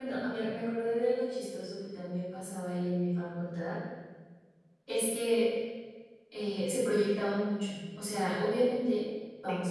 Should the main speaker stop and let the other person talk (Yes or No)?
No